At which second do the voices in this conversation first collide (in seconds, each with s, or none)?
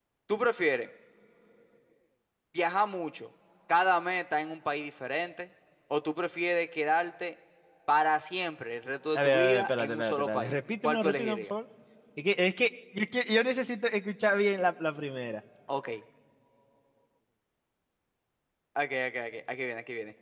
9.1 s